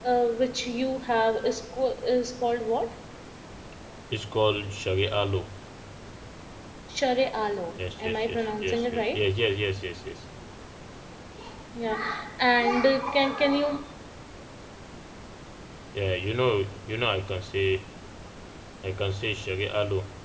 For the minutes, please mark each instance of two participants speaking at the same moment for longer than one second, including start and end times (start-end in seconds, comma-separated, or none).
7.8-9.3